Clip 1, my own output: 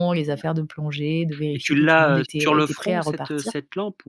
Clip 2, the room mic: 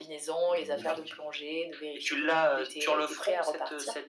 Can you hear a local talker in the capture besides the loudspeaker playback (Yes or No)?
Yes